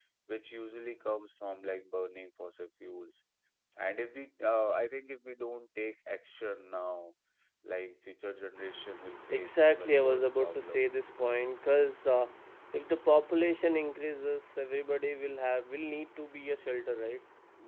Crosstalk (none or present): present